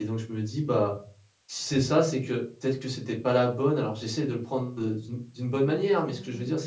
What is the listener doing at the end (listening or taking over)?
listening